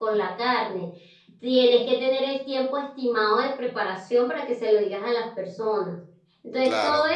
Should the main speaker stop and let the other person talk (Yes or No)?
No